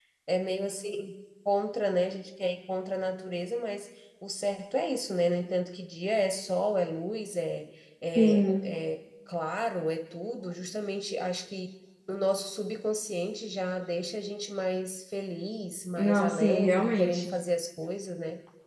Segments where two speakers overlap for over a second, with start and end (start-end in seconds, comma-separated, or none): 16.0-17.3